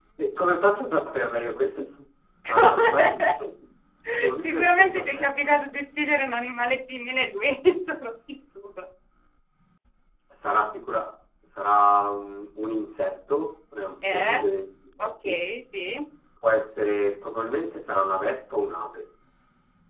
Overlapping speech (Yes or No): Yes